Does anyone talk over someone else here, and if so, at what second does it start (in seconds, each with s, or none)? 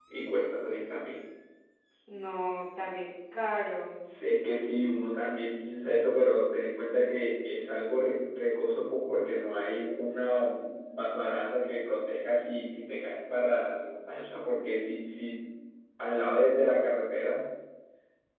none